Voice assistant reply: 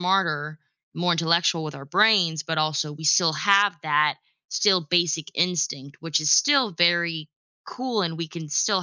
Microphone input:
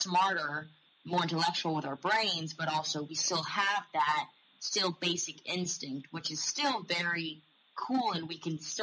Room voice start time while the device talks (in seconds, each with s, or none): none